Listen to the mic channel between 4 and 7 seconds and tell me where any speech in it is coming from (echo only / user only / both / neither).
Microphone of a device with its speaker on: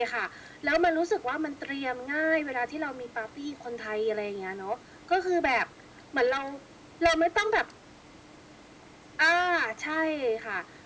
echo only